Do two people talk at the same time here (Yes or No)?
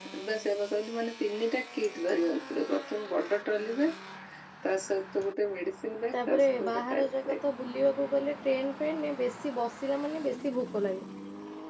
Yes